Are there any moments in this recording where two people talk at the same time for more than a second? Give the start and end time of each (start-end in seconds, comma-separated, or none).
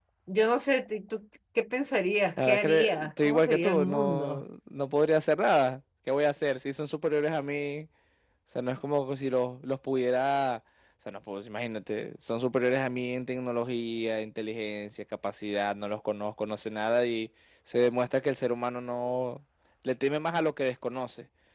2.4-4.4